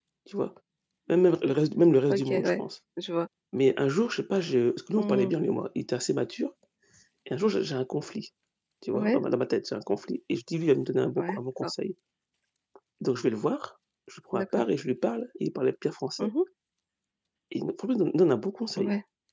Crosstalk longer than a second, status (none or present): none